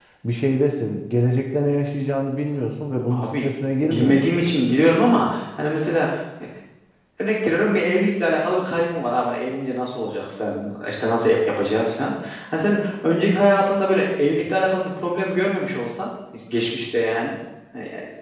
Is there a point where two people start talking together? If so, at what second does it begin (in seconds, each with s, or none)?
3.1 s